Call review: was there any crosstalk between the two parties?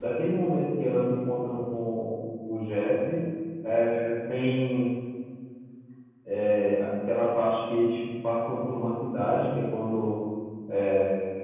No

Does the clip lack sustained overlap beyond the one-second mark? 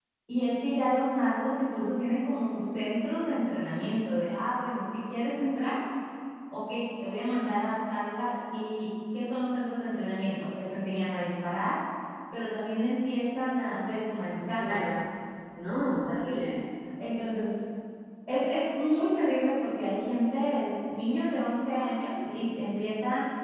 Yes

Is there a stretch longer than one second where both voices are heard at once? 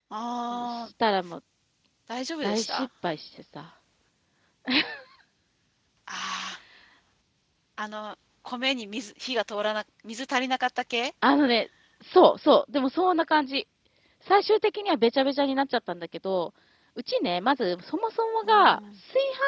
No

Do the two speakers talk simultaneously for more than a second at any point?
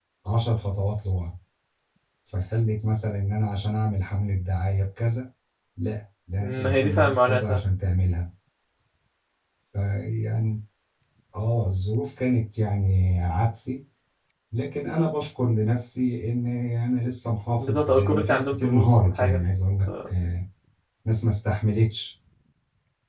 Yes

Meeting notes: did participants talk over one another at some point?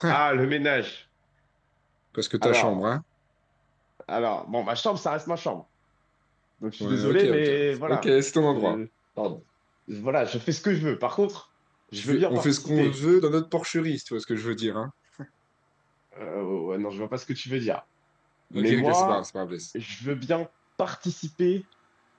Yes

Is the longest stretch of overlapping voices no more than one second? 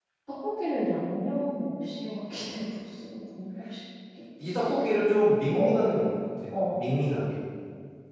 Yes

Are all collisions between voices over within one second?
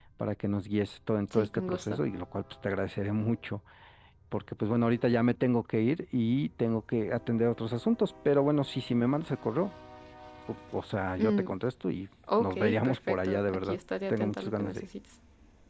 No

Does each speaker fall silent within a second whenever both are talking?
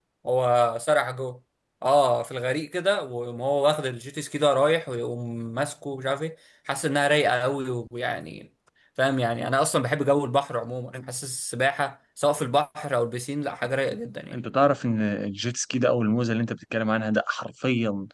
Yes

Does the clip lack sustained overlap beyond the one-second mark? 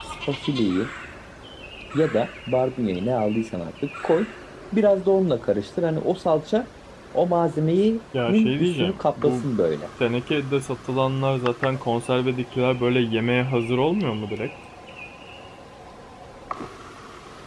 No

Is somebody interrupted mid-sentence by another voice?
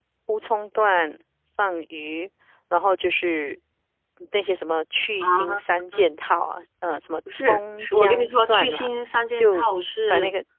Yes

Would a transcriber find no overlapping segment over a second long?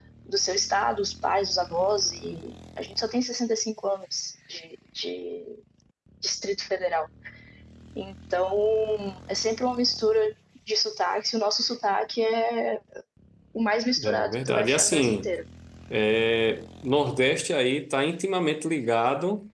No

